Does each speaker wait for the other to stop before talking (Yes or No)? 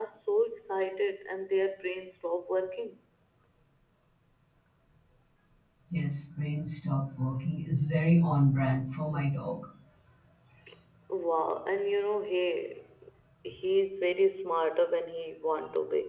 Yes